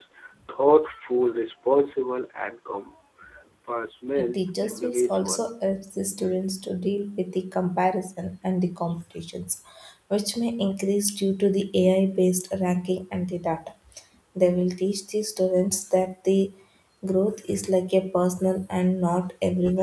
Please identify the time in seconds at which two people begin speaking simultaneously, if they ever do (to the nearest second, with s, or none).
4 s